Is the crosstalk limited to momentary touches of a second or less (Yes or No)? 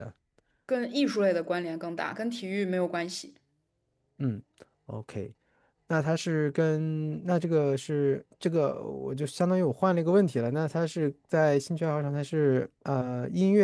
Yes